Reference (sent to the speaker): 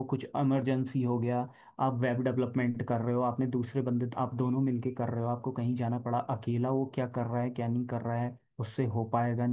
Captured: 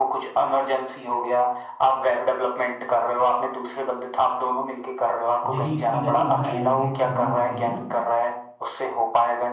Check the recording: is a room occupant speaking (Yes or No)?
Yes